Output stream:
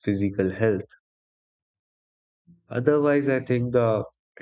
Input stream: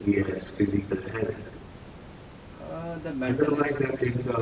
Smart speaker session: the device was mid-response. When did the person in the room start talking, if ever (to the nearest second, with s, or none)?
3 s